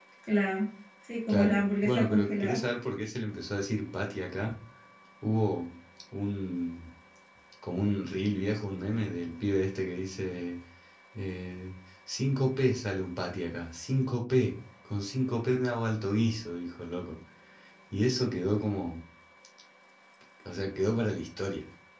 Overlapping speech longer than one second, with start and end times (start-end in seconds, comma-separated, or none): 1.3-2.6